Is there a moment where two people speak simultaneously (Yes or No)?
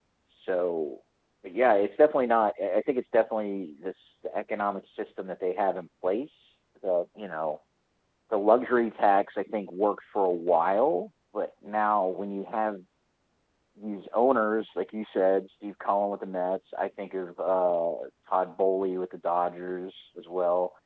No